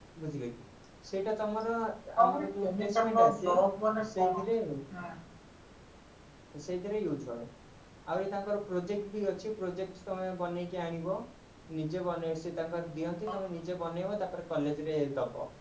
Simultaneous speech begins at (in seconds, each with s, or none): 2.2 s